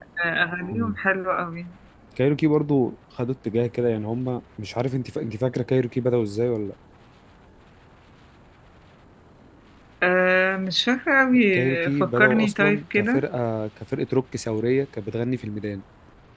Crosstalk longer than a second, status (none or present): present